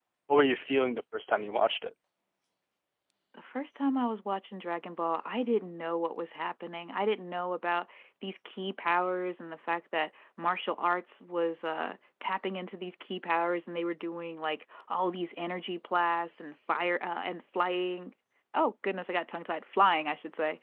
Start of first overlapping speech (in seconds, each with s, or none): none